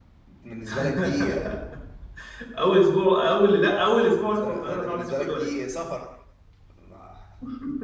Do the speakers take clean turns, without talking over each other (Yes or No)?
No